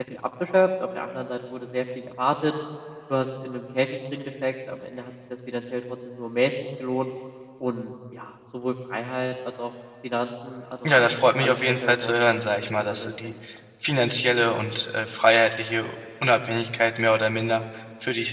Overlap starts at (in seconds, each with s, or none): 10.8 s